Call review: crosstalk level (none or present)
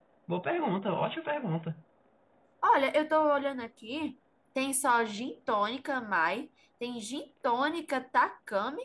none